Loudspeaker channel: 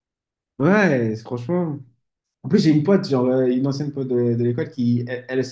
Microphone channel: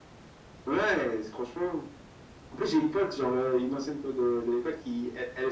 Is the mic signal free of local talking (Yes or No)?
Yes